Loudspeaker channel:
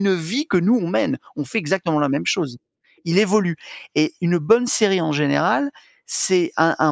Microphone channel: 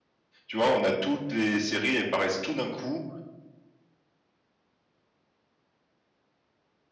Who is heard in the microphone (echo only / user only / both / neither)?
user only